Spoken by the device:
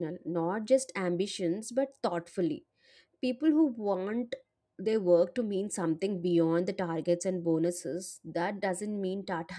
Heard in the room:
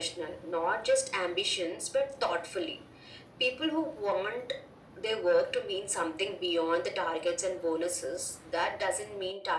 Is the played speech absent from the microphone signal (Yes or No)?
No